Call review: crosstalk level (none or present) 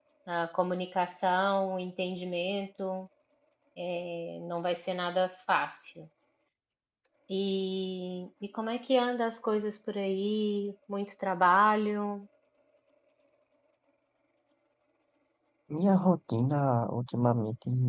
none